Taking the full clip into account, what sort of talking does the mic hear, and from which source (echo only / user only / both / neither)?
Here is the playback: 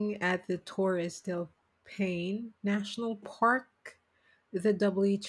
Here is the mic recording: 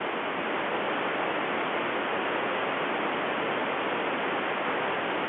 neither